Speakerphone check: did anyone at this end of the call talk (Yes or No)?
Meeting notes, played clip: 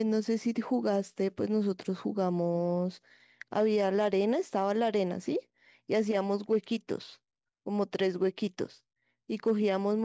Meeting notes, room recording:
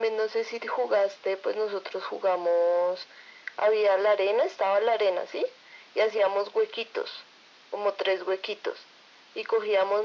No